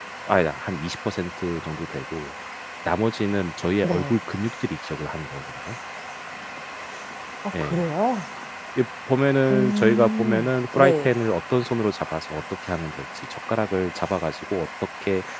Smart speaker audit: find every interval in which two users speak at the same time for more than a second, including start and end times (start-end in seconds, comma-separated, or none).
9.5-11.1